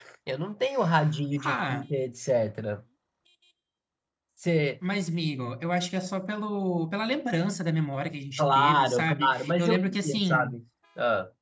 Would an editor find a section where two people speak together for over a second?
Yes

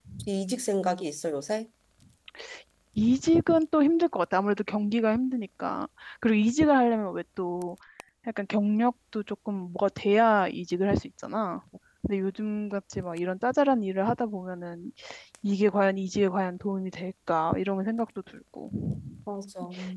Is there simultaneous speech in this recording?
No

